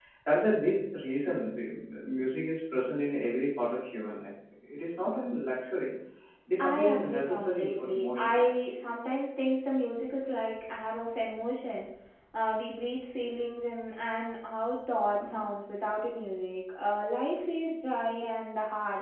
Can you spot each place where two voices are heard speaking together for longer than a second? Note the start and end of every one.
6.6-8.5

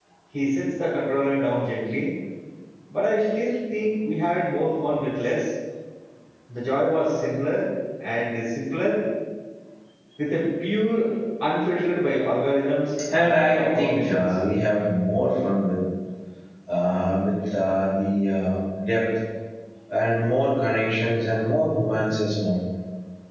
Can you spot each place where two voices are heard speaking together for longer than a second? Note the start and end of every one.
13.1-14.3

